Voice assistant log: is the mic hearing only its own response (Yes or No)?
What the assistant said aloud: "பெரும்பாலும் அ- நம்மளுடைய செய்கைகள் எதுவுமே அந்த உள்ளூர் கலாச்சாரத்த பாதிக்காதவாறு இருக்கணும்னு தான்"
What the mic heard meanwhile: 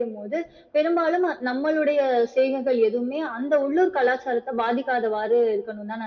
Yes